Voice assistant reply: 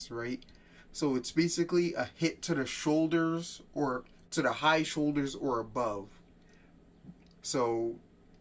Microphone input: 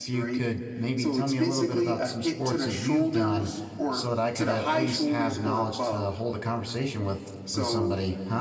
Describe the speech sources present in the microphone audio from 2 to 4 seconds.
both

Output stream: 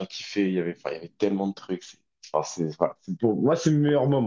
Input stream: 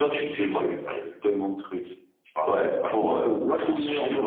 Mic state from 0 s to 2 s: both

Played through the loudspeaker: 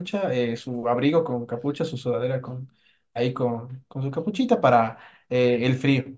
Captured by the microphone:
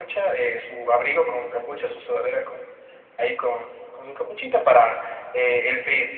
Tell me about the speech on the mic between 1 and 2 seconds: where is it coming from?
echo only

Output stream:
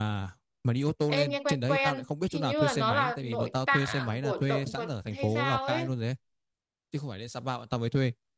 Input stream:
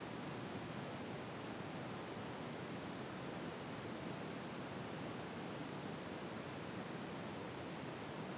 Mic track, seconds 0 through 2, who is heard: neither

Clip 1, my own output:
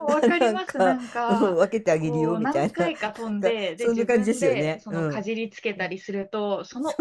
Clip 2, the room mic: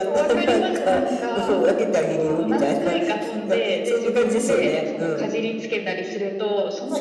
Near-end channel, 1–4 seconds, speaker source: echo only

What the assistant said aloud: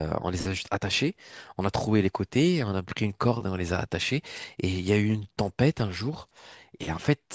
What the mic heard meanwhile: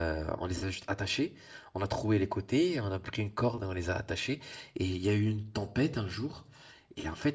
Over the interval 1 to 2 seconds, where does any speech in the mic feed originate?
echo only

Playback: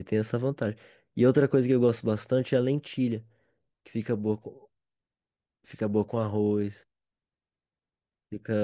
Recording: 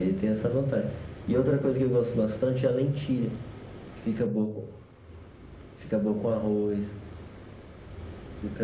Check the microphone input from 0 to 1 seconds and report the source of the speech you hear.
echo only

